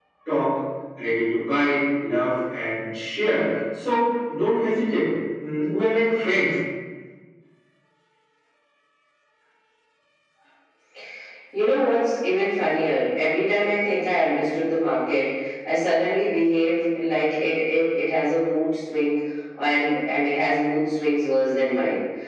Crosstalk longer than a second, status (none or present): none